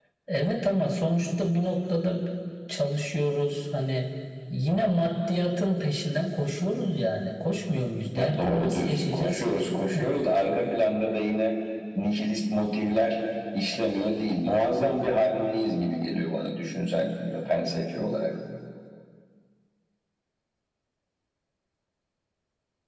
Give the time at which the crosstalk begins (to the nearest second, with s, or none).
8 s